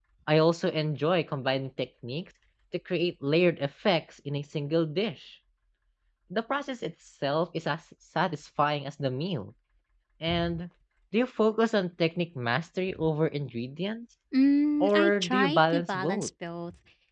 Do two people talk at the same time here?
Yes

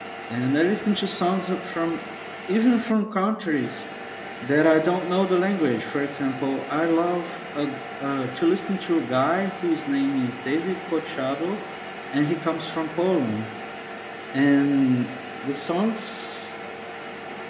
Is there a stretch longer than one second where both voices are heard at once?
No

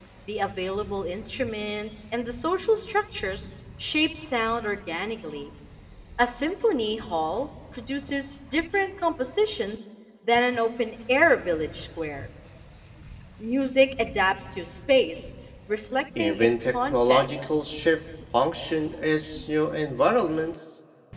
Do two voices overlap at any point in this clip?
Yes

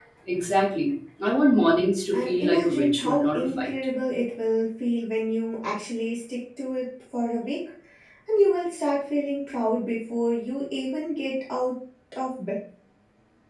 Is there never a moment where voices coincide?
No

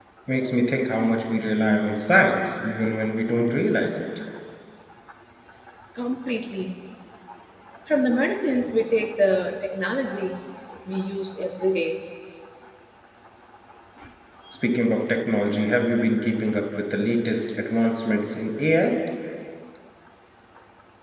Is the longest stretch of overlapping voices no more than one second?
Yes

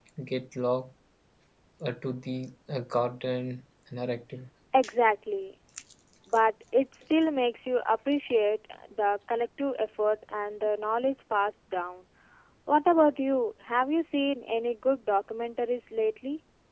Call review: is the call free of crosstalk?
Yes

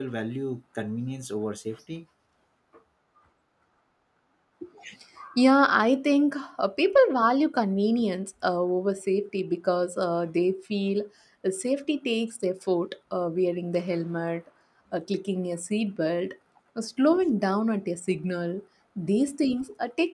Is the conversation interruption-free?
Yes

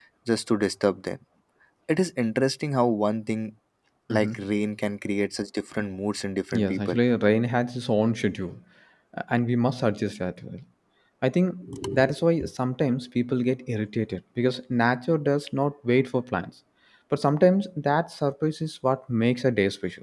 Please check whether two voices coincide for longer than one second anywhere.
No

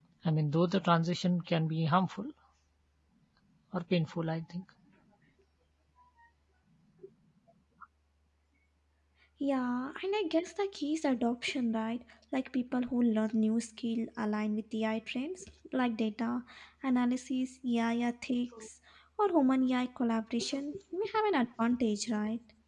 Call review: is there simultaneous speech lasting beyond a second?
No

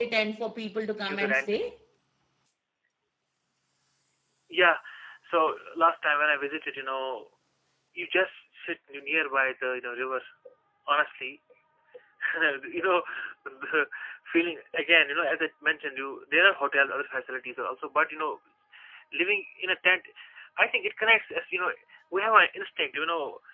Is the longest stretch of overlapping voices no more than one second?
Yes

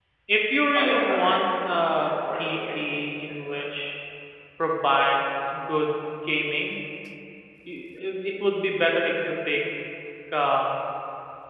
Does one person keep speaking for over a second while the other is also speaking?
Yes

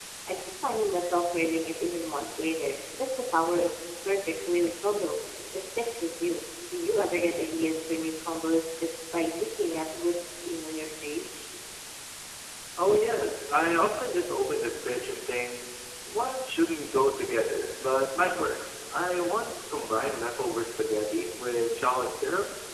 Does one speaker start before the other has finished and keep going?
No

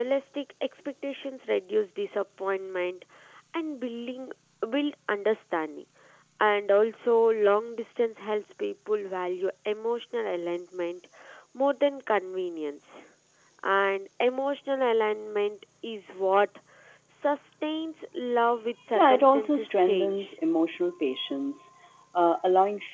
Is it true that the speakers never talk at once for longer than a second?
No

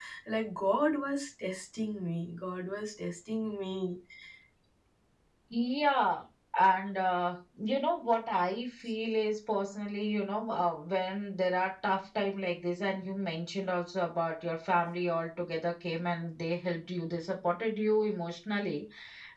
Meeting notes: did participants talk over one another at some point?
No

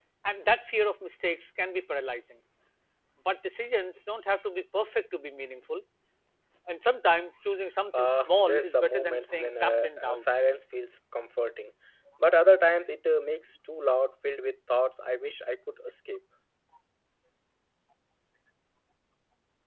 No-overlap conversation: No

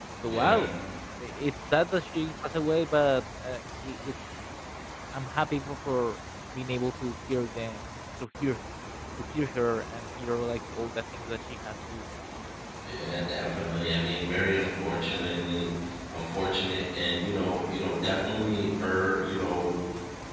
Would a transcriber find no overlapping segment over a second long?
Yes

